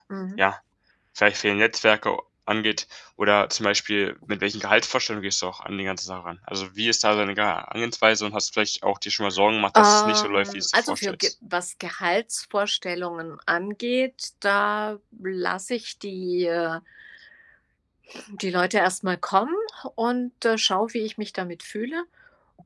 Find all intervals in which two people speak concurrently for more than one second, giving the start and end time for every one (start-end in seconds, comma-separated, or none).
9.8-11.3